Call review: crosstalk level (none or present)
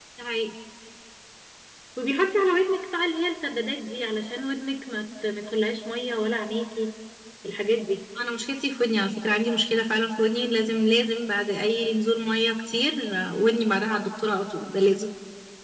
none